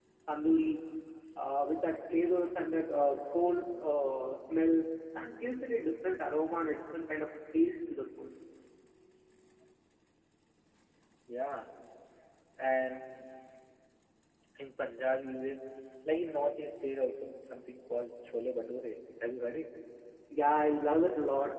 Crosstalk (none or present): none